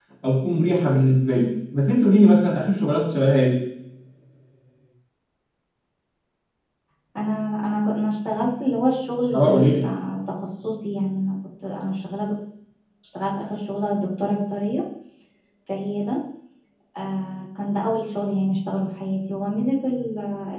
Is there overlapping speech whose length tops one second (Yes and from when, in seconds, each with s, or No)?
No